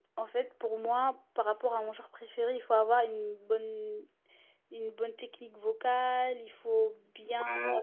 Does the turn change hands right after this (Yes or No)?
No